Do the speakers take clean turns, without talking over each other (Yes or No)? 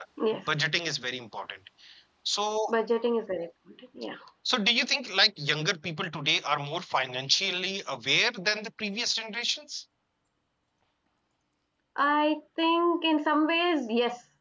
Yes